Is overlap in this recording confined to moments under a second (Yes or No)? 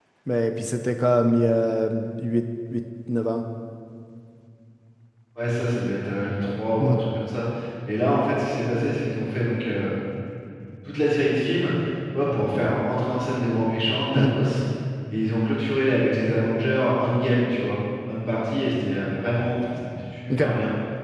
Yes